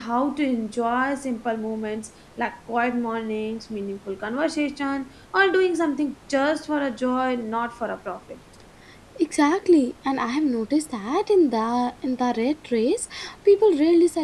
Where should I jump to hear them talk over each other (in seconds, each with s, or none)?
none